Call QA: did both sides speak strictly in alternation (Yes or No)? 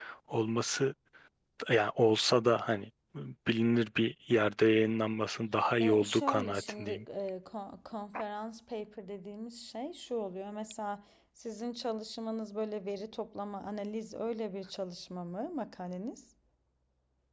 No